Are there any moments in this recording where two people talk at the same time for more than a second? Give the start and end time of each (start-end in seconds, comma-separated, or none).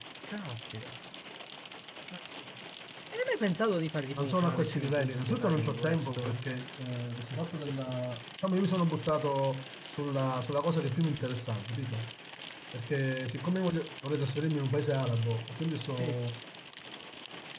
4.2-6.3